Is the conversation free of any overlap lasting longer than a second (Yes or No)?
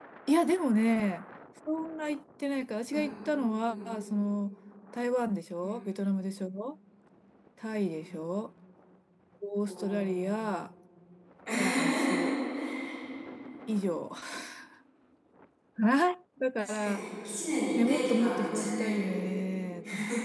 No